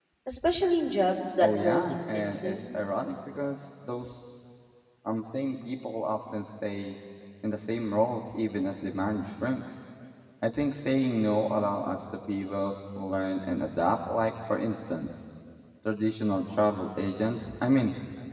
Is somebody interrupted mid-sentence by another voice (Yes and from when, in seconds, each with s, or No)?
Yes, from 1.4 s